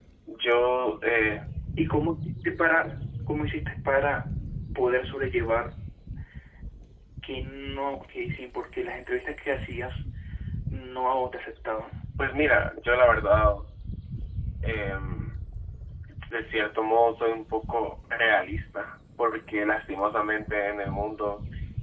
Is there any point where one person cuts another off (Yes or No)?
No